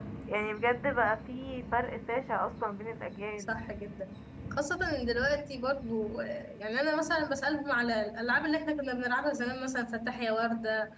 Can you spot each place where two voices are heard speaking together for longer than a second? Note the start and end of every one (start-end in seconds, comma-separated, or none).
none